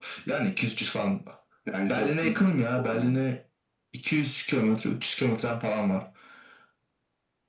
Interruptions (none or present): present